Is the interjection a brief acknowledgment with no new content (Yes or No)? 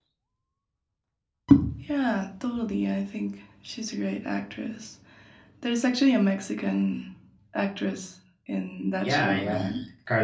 No